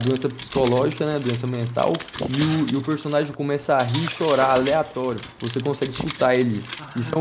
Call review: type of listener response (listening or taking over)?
taking over